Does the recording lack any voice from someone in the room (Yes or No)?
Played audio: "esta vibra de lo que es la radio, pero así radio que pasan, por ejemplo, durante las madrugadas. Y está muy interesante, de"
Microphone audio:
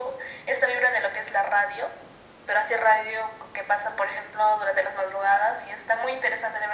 Yes